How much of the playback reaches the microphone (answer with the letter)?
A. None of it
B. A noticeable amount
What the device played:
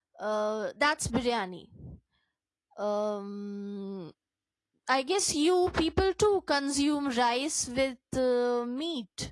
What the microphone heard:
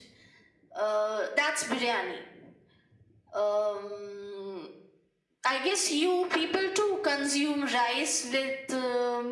B